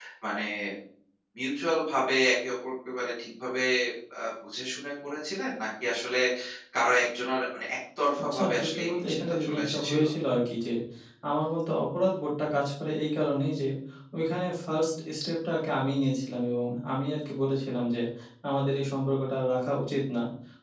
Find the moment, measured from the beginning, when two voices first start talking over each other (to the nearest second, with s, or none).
8 s